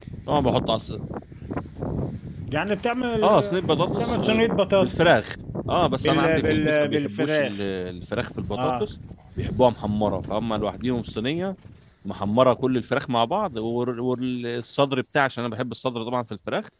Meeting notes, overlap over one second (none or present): present